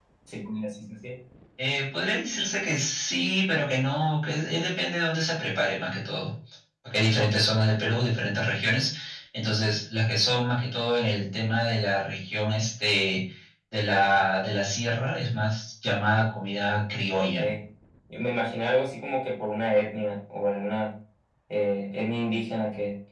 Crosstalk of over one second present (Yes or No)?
No